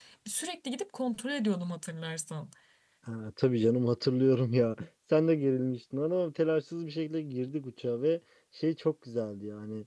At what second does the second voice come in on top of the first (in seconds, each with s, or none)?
none